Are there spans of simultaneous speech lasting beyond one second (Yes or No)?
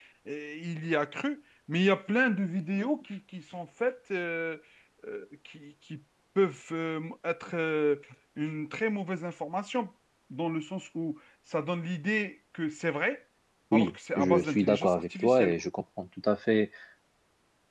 Yes